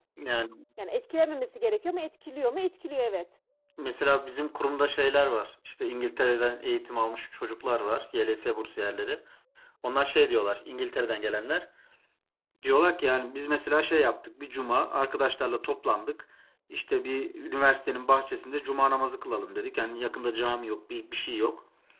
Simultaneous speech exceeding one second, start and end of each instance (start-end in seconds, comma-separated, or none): none